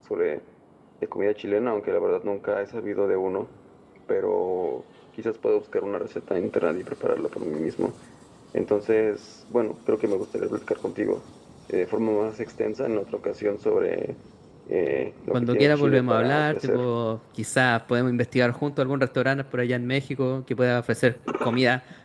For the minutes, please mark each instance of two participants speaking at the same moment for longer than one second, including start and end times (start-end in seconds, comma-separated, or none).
15.3-16.8